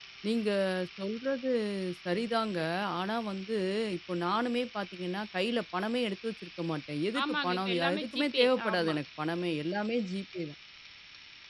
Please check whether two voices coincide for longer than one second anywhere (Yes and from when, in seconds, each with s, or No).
Yes, from 7.1 s